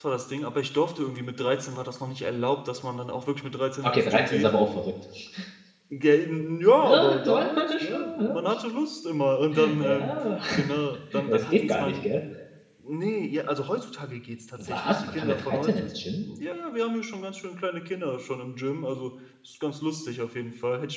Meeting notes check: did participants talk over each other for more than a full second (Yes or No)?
Yes